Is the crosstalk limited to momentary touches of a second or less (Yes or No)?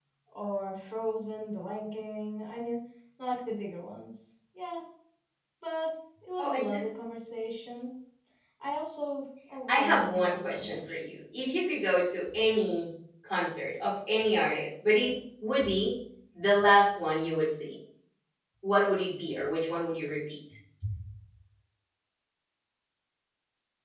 No